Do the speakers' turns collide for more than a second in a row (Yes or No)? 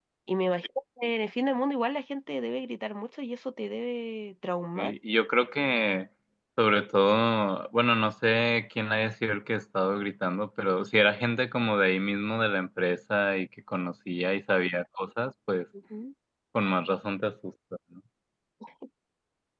No